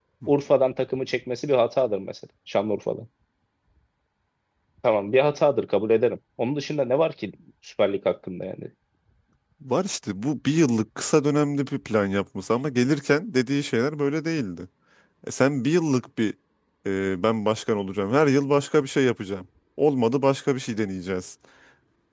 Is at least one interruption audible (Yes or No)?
No